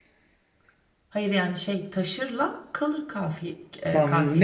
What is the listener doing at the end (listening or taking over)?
taking over